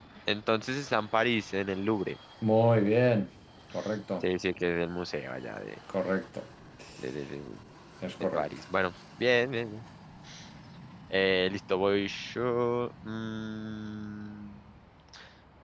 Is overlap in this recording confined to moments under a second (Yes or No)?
Yes